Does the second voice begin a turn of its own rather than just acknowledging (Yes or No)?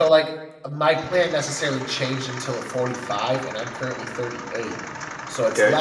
No